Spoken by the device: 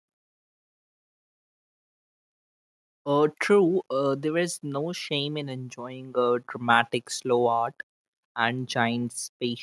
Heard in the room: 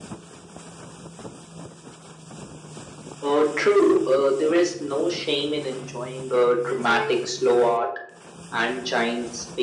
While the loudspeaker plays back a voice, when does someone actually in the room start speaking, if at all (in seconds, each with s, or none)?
6.7 s